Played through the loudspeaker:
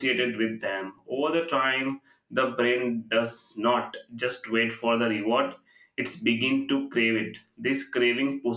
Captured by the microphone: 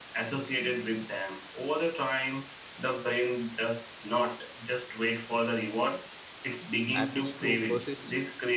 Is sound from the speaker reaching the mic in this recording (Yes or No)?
Yes